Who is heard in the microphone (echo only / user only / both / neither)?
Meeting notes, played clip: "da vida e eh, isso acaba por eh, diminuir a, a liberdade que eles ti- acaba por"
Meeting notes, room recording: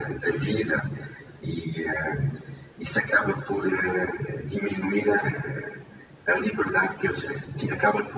echo only